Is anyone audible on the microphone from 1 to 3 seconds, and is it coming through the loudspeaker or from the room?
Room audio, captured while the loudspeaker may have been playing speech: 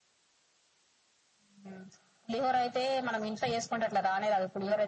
echo only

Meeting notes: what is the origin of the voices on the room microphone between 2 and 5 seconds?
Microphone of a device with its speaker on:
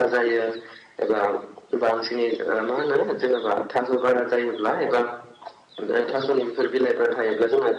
echo only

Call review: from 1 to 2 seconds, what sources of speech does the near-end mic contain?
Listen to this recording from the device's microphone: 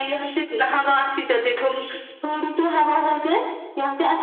echo only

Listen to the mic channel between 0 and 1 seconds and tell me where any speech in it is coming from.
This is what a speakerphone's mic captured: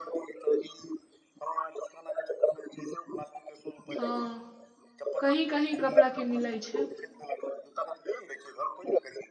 echo only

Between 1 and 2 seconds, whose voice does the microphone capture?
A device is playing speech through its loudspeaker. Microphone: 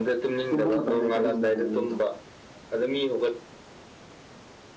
both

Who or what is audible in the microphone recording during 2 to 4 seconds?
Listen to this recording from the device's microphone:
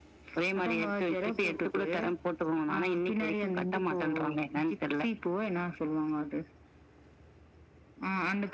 echo only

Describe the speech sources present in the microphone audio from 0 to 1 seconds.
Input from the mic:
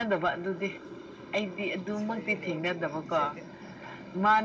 echo only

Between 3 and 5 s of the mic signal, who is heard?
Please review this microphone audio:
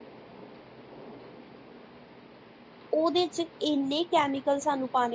user only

